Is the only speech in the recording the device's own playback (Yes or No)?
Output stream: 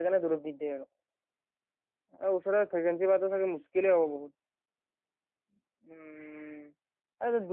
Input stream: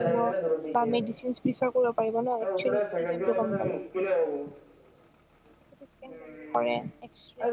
No